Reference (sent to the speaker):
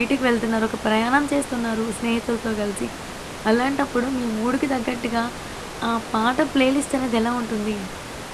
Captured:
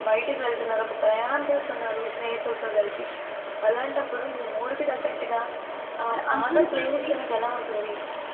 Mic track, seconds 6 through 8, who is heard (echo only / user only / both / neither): both